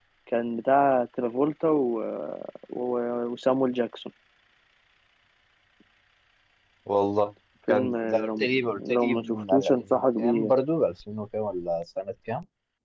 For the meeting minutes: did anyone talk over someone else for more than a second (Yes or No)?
Yes